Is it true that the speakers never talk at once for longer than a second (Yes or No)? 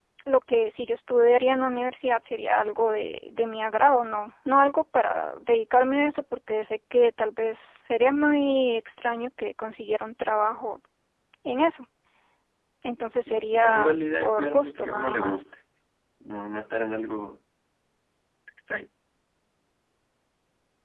No